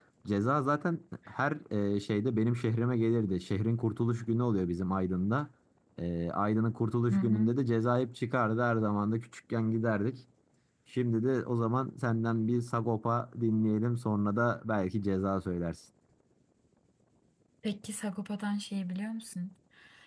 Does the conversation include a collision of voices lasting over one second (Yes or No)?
No